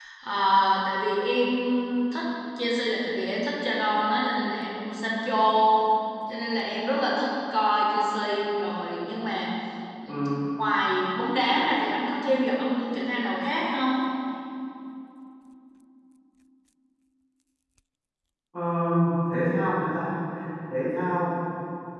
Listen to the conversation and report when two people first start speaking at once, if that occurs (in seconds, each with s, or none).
none